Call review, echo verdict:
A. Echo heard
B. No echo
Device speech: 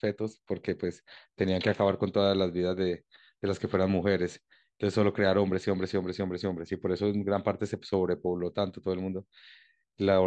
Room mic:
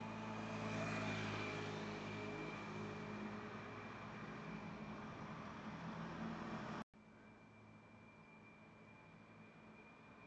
B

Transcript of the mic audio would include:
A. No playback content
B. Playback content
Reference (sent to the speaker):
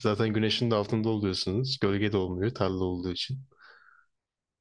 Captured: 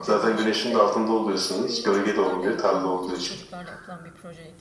B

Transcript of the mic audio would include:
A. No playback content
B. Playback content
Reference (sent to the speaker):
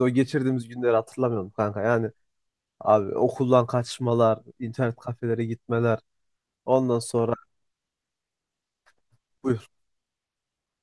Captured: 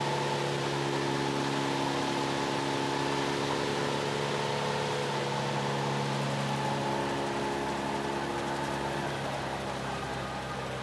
A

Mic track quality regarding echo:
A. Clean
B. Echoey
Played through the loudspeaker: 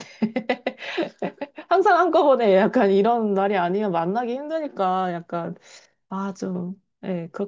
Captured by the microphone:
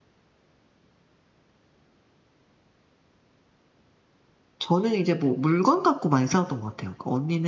A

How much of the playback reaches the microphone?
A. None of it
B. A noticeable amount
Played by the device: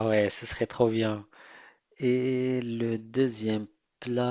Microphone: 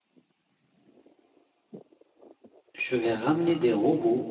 A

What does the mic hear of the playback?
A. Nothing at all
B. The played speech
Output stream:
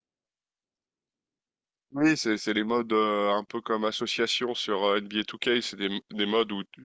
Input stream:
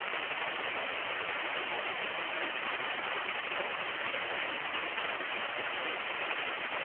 A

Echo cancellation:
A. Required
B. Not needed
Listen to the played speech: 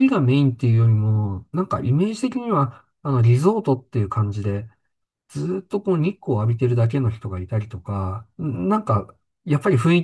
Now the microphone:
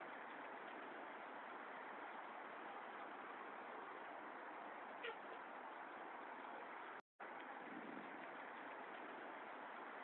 B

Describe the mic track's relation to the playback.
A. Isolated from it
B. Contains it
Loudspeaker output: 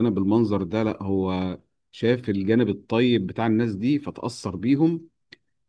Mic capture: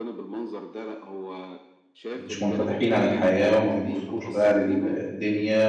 B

